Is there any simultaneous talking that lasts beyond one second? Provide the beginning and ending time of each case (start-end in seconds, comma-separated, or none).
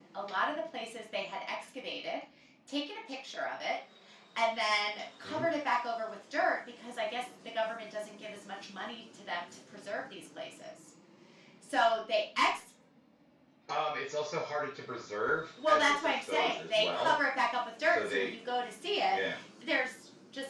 15.7-17.1